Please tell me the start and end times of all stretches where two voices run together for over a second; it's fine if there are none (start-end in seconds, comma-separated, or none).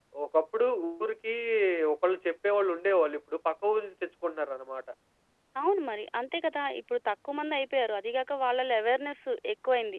none